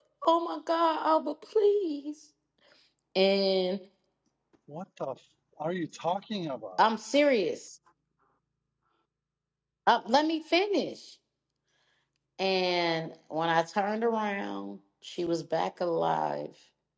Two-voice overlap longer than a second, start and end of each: none

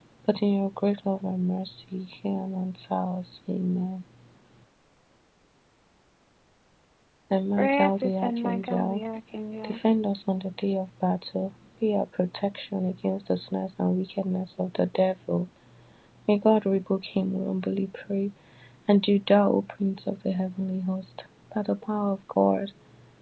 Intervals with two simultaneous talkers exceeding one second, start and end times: 7.6-9.0

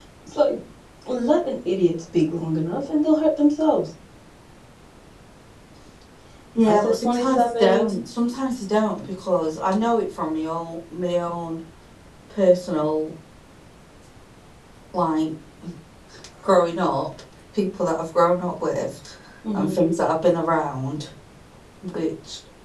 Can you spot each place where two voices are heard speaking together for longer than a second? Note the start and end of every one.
6.7-7.9

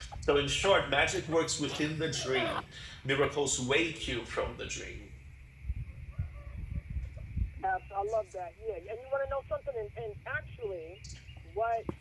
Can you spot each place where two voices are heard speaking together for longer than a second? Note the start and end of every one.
none

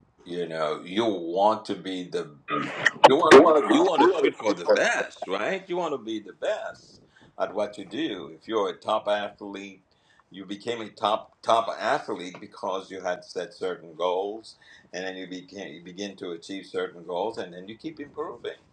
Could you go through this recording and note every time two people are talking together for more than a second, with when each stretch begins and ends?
3.3-4.8

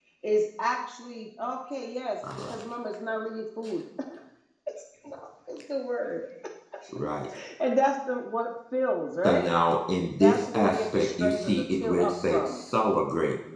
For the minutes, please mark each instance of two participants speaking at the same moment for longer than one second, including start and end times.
10.2-12.4

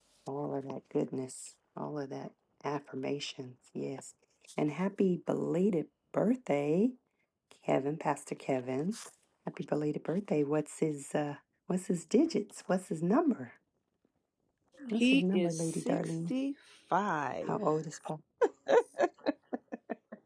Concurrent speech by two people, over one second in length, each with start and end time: 14.9-16.3

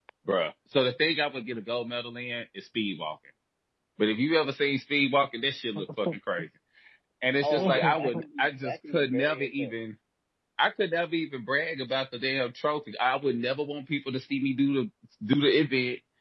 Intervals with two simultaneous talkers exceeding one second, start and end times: 7.4-9.7

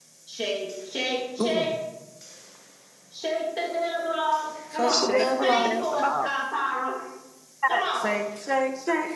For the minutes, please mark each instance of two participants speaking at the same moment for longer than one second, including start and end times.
4.7-6.3

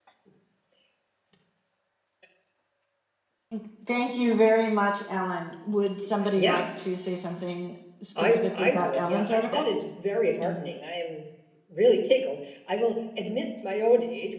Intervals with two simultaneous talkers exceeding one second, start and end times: 8.2-9.7

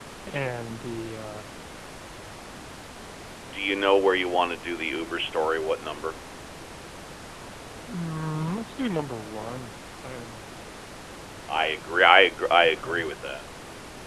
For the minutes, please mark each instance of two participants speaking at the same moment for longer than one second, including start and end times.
none

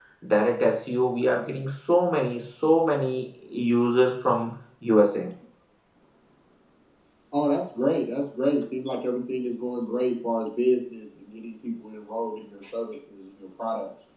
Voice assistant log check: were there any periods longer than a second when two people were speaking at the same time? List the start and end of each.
none

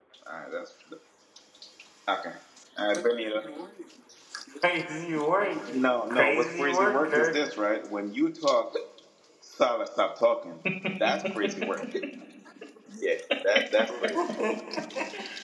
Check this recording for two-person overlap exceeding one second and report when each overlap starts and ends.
6.1-7.4

